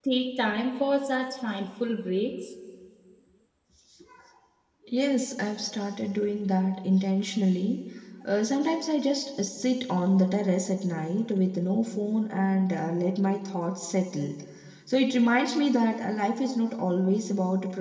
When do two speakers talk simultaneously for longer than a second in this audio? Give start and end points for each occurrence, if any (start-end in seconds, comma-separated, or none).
none